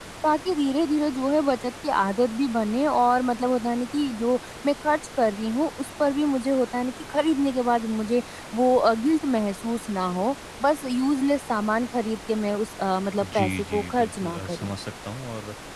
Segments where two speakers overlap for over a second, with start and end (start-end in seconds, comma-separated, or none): 13.2-14.7